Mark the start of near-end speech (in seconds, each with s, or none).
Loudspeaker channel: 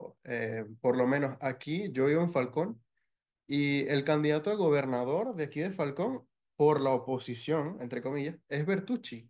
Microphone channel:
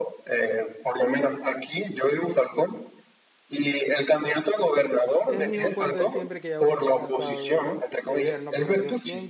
5.2 s